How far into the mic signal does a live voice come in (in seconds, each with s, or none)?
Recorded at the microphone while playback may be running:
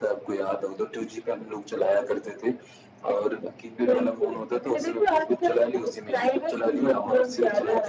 none